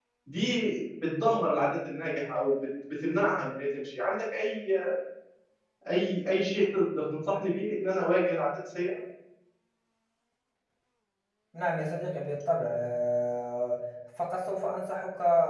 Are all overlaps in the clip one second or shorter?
Yes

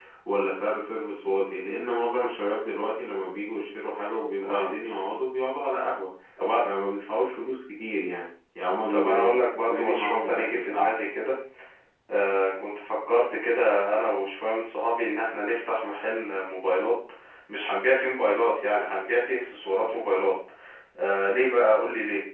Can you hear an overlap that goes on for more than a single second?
Yes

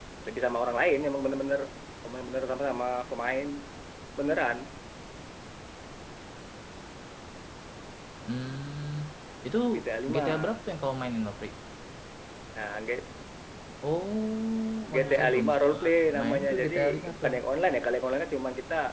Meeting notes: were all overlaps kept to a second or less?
No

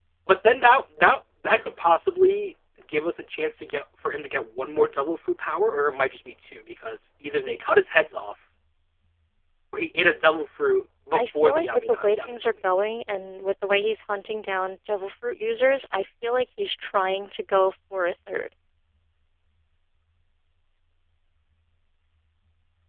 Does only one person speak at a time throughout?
No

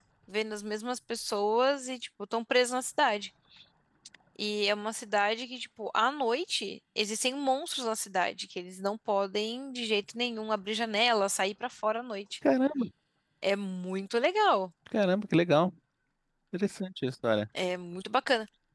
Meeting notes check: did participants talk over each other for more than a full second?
No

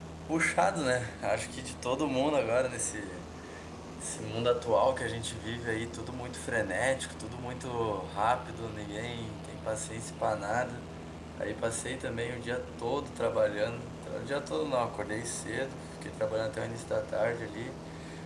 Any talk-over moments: No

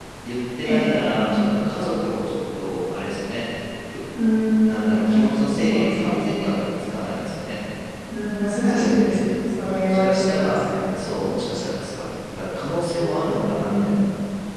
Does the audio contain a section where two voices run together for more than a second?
Yes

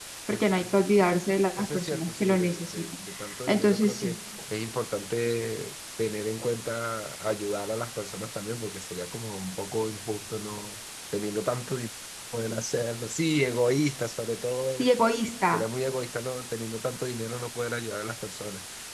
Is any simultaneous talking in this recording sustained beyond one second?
Yes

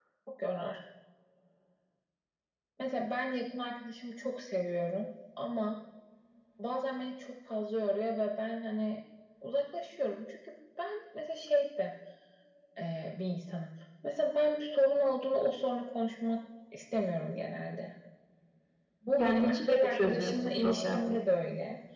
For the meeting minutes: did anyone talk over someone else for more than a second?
Yes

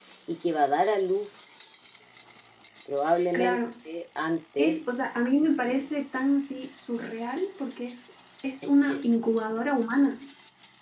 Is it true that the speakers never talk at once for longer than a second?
Yes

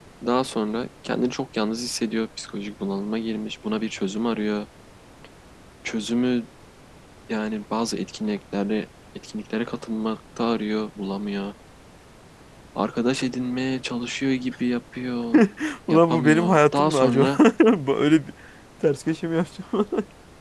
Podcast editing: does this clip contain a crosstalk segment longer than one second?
Yes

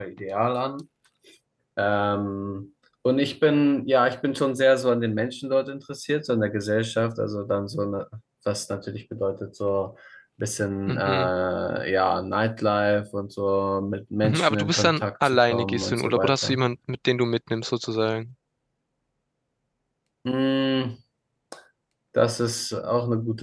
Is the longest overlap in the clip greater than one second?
Yes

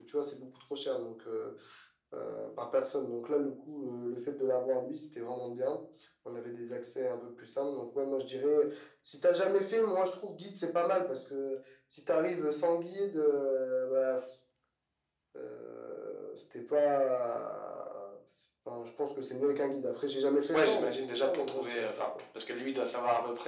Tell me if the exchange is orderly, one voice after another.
No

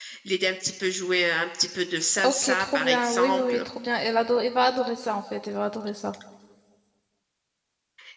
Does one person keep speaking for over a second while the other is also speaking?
Yes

